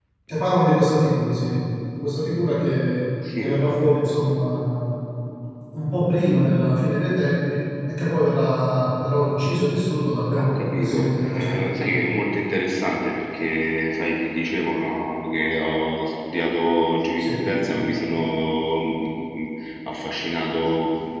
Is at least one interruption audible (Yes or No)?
Yes